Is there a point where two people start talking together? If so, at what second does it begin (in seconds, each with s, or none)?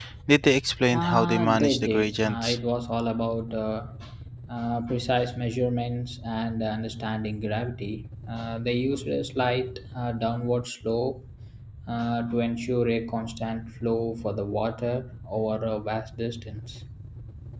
0.9 s